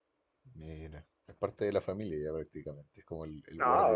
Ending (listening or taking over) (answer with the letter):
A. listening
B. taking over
B